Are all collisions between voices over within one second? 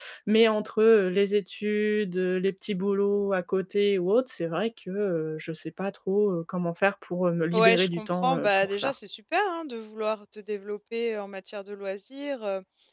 No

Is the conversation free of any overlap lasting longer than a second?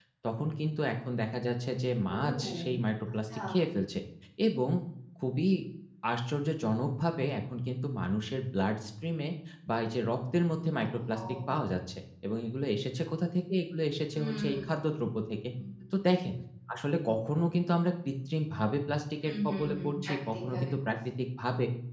No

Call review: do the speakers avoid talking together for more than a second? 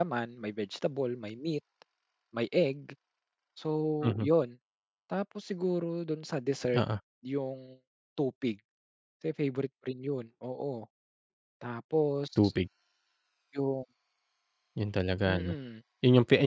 Yes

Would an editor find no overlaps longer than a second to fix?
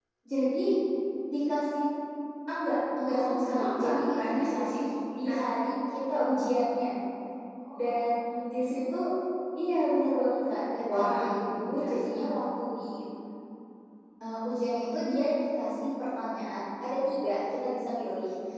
No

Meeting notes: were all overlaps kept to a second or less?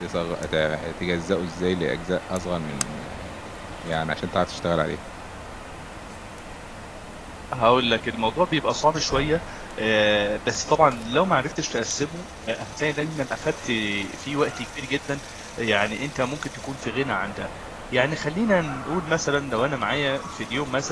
Yes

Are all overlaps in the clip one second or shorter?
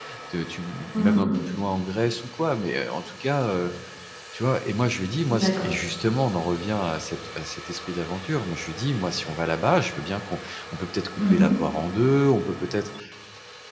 Yes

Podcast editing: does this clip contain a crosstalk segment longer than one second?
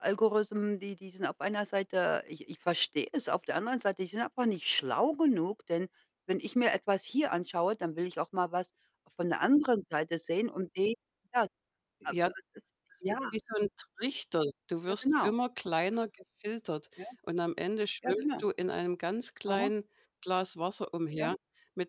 No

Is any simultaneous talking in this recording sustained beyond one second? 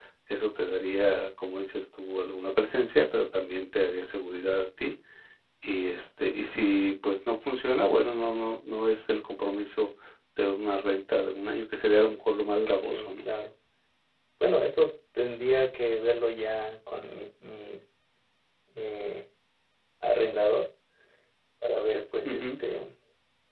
No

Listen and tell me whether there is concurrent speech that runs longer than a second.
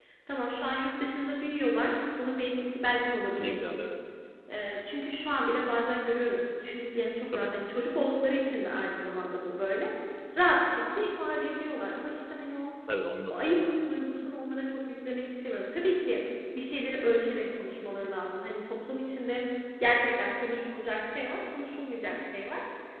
No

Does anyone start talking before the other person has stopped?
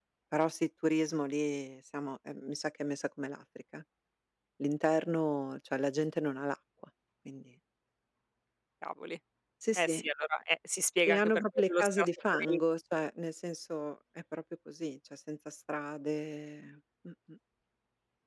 Yes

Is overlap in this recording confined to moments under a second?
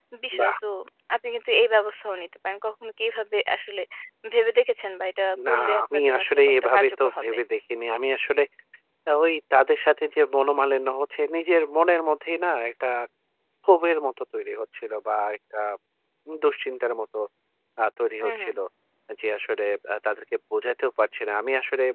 No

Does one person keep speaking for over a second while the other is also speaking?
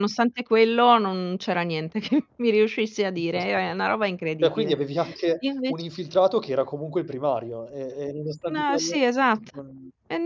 No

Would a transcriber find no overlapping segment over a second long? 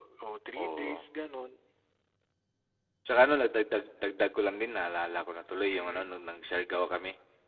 Yes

